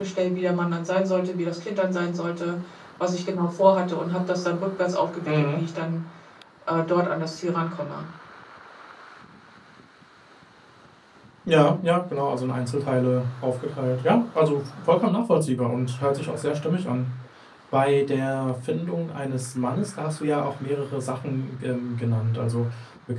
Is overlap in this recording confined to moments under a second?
Yes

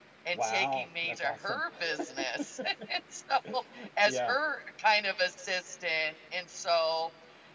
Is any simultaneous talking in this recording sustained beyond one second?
Yes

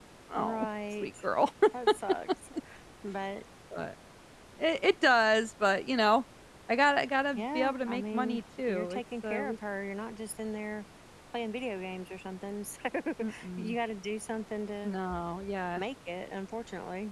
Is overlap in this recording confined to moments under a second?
No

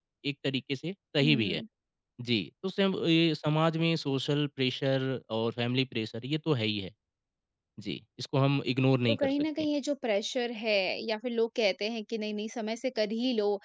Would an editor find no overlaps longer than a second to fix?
Yes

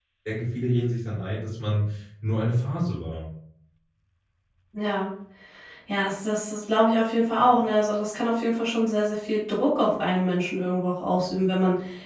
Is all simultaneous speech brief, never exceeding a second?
Yes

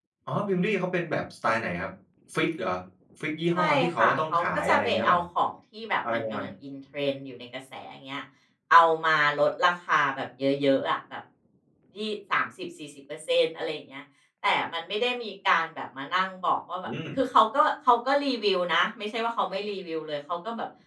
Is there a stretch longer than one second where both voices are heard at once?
Yes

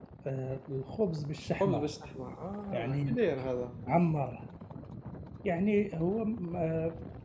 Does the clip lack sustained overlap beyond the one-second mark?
Yes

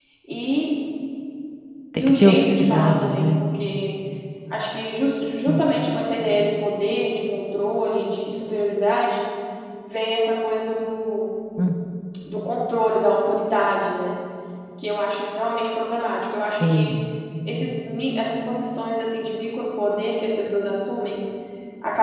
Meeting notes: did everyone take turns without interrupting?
No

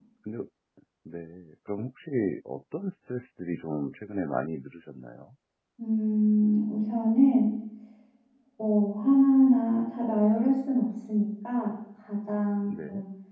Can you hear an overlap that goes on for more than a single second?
No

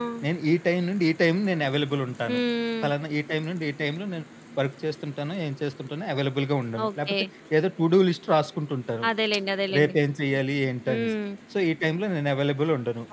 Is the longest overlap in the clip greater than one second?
No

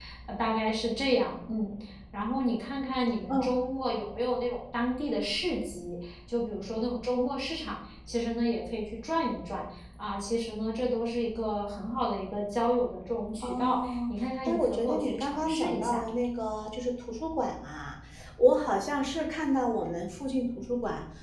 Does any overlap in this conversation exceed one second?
Yes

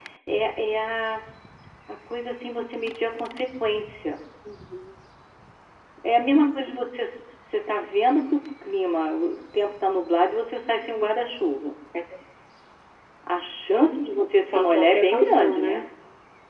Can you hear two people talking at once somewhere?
Yes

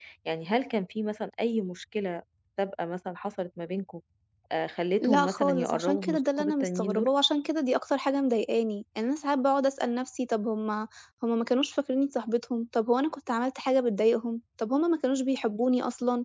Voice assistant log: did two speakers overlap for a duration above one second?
Yes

